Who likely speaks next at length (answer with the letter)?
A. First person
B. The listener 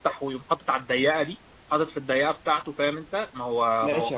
B